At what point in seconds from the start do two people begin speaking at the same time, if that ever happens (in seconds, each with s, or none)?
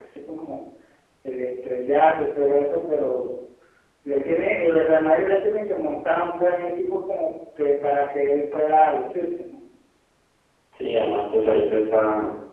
none